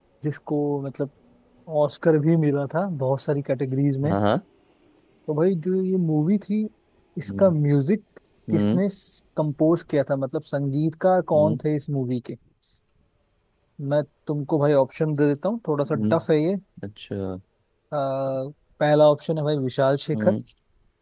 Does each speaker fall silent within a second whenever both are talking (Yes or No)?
Yes